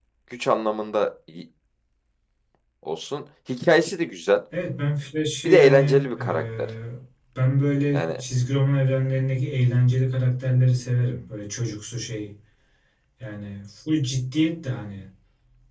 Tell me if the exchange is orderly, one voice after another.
No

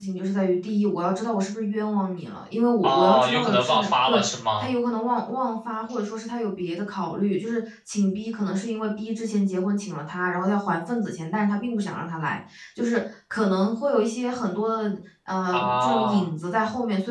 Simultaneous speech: Yes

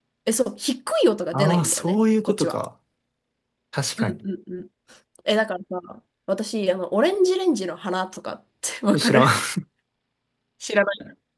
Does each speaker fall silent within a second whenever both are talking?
No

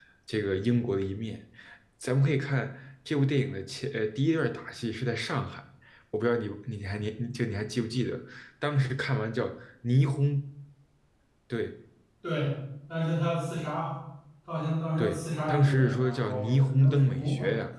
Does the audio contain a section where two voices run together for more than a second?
Yes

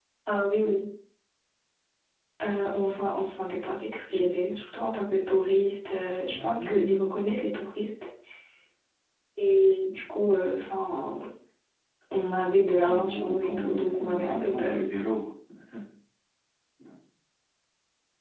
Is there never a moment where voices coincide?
No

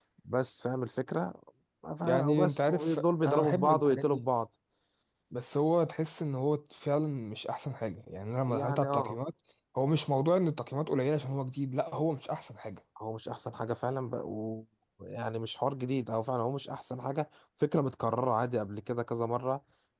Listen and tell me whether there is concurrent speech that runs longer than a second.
Yes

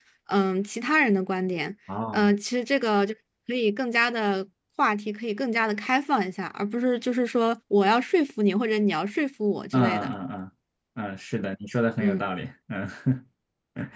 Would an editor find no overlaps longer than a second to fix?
Yes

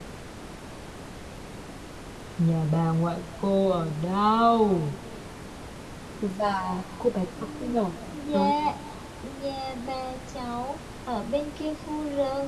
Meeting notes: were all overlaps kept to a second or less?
Yes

